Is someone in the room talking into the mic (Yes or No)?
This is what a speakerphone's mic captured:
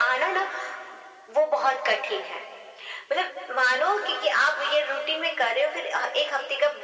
No